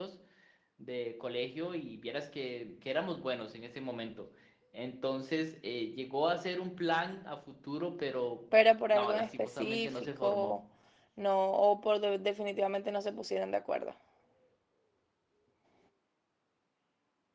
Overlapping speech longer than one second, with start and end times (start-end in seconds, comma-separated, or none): 8.9-10.5